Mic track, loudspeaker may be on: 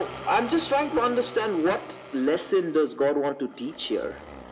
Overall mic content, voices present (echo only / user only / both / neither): echo only